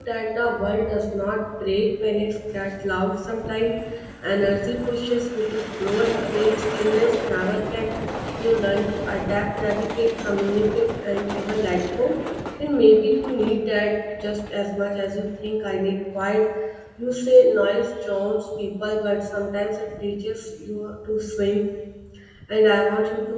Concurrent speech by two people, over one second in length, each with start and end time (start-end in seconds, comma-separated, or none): none